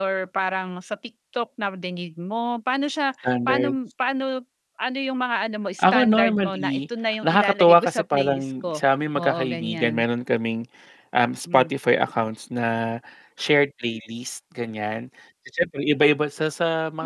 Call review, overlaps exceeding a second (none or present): present